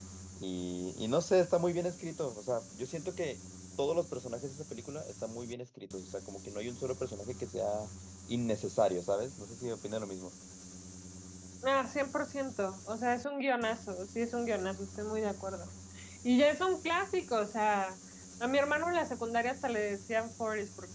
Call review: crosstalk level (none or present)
none